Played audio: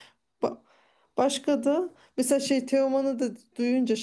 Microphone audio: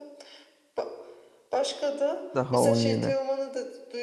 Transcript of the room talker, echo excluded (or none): Daha 17.